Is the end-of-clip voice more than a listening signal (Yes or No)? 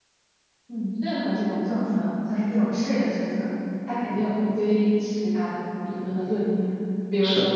No